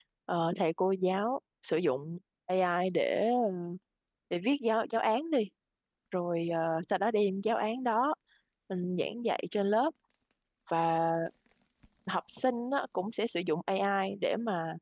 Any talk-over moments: No

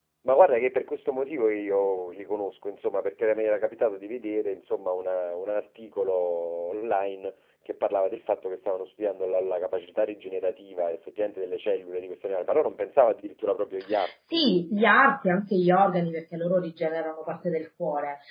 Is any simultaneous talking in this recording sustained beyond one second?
No

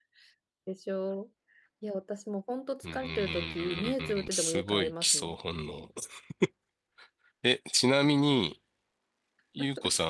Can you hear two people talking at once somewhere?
Yes, from 2.8 s

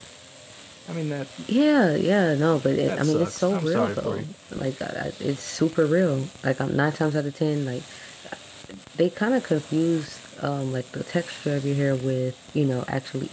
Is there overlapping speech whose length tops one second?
Yes, from 2.9 s

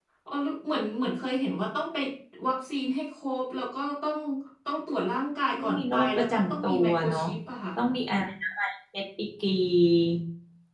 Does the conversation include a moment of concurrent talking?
Yes, from 5.6 s

